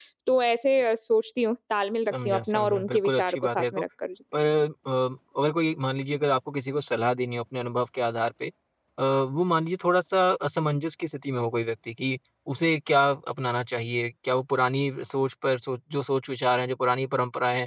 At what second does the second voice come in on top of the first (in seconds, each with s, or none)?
2.0 s